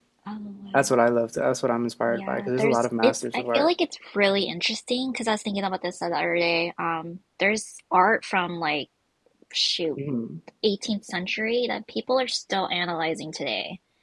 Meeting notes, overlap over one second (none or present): present